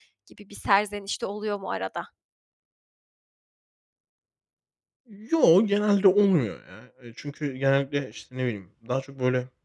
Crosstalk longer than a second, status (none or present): none